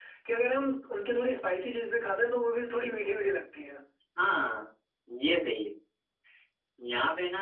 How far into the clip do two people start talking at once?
none

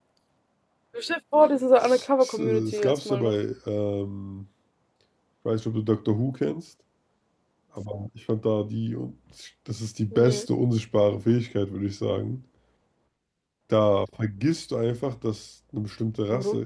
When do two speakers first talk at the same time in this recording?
2 s

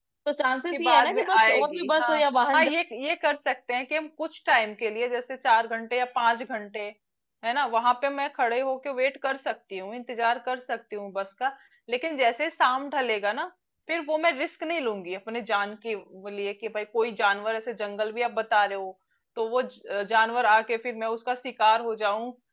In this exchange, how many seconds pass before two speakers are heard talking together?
1 s

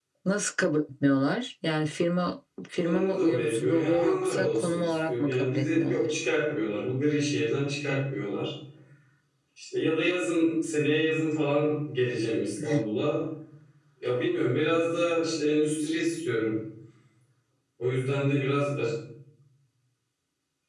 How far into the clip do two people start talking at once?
3 s

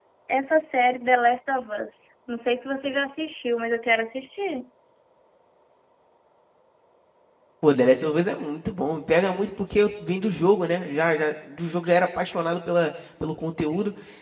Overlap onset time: none

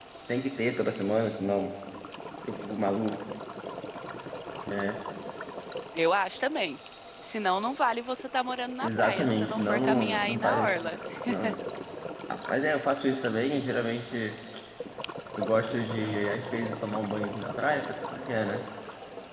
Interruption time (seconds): 9 s

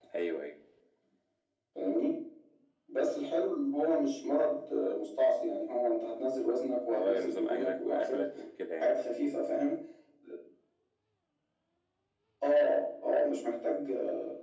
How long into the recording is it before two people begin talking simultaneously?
7 s

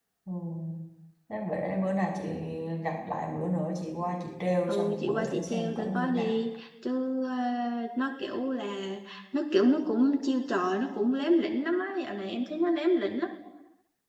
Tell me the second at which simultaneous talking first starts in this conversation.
5 s

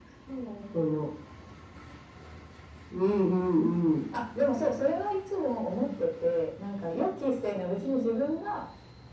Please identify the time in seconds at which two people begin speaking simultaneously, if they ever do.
none

